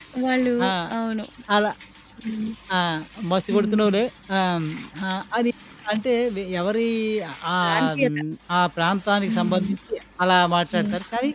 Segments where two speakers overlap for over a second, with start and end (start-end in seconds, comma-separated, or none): none